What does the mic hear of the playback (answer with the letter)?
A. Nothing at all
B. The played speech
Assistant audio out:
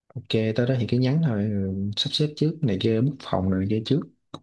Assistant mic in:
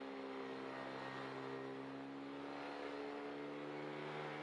A